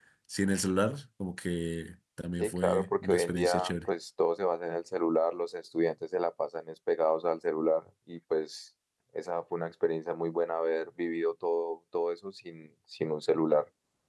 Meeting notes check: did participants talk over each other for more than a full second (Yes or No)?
Yes